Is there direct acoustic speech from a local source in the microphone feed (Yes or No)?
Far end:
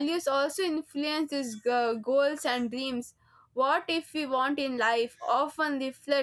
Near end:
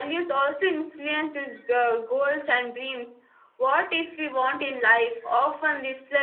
No